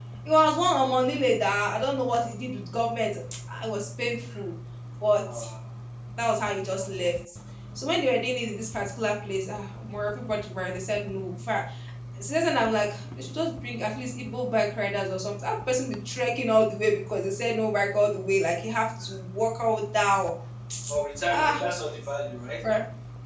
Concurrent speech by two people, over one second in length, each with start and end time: none

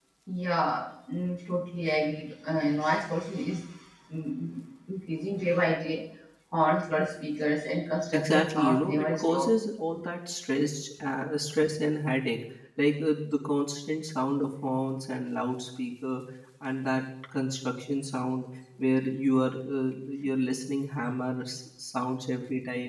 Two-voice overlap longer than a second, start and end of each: 8.1-9.6

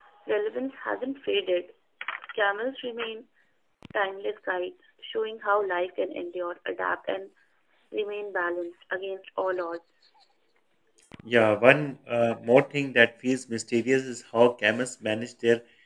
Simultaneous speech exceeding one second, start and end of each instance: none

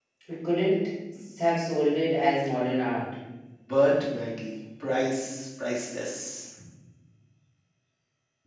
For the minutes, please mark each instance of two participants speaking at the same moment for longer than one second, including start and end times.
none

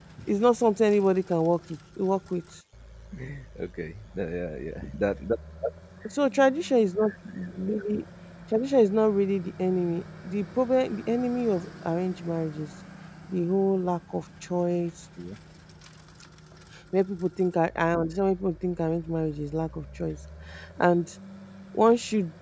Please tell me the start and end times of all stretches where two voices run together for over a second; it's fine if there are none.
none

